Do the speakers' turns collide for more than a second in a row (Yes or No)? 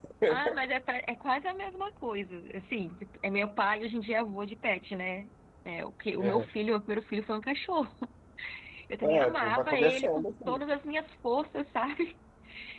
Yes